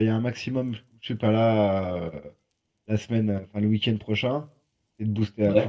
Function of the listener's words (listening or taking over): listening